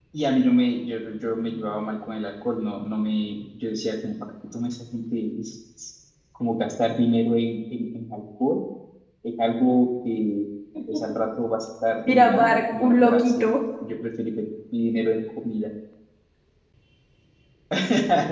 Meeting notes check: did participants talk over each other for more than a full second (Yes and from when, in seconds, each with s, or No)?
Yes, from 12.0 s